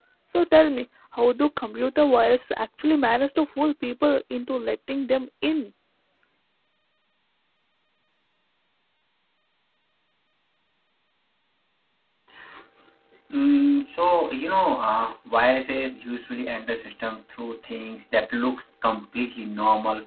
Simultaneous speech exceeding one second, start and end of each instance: none

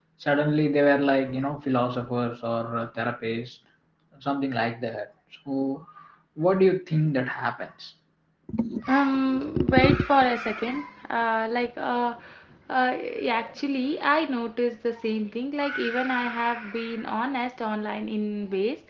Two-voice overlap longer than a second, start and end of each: none

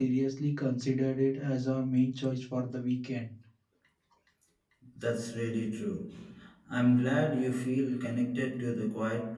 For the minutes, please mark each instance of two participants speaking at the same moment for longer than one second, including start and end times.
none

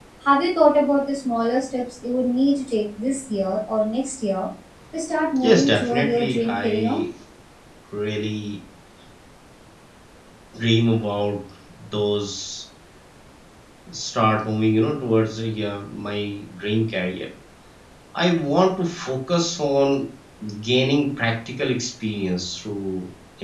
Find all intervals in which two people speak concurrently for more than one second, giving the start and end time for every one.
5.4-7.0

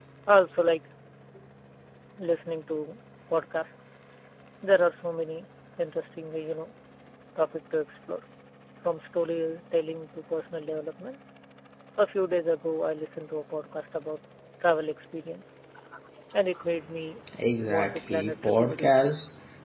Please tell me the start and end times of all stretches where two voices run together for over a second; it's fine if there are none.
17.8-19.1

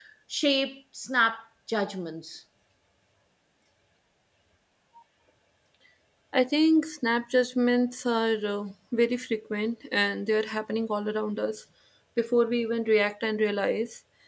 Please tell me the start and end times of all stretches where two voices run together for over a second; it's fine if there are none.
none

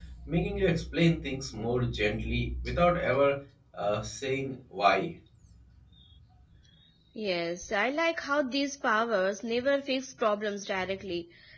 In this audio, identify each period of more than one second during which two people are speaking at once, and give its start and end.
none

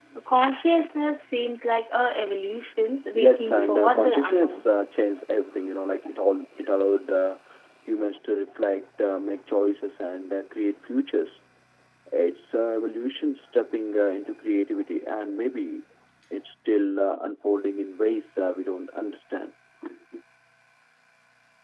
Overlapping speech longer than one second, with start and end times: 3.1-4.6

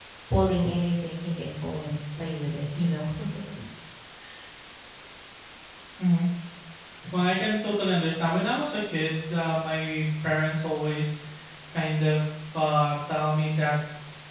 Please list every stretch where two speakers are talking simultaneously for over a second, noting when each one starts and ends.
none

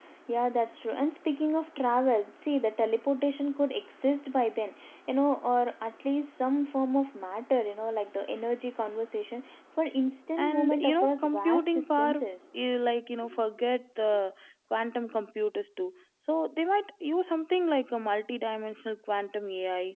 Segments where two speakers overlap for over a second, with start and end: 10.5-12.1

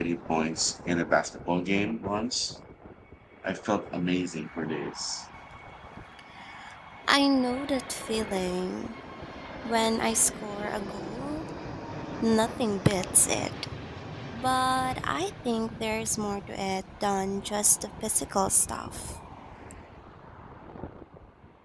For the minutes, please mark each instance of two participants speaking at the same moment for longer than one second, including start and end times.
none

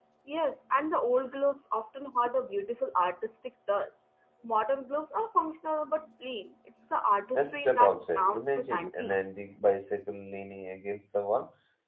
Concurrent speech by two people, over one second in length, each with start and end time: 7.3-9.1

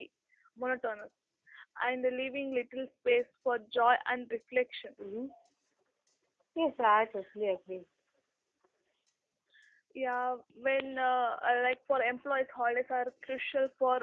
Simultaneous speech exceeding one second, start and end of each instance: none

